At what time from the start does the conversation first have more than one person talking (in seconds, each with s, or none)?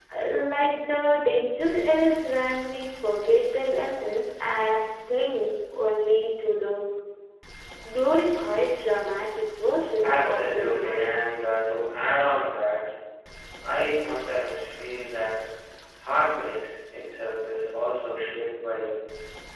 10.0 s